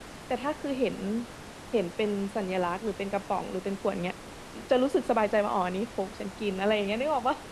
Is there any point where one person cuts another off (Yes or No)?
No